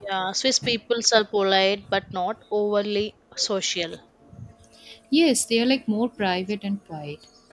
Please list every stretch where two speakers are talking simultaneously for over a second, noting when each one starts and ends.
none

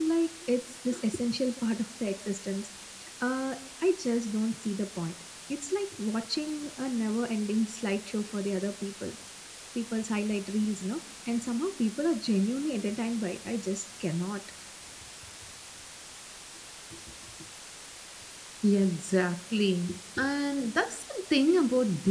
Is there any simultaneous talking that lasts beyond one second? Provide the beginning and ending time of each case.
none

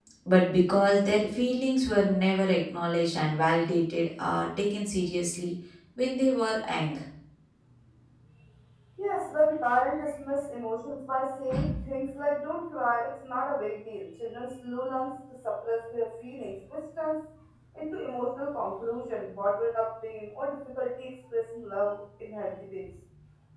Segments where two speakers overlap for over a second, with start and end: none

